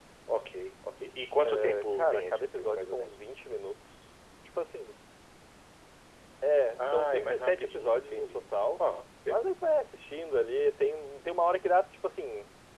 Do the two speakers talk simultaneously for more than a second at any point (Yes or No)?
Yes